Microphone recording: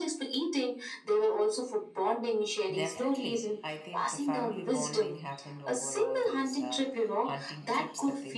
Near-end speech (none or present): present